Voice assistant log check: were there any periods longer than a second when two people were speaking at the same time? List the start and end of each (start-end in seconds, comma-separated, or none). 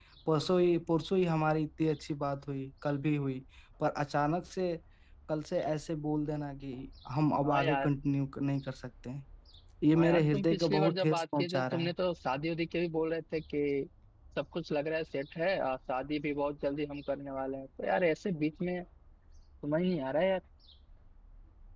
9.9-11.9